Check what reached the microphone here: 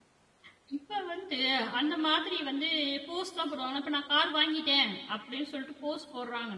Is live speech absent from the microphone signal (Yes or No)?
No